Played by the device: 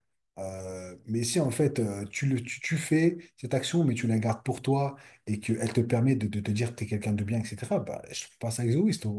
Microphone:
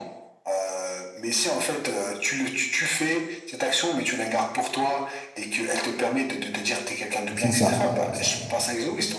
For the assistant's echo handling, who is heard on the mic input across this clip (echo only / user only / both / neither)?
both